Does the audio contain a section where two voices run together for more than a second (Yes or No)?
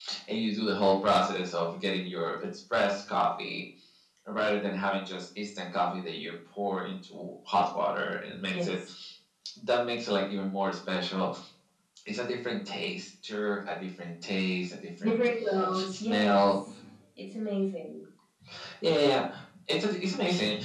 Yes